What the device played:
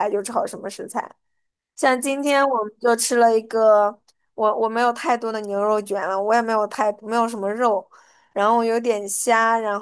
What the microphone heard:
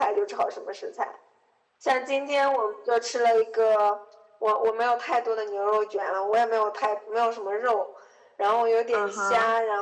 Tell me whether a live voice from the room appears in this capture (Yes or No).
Yes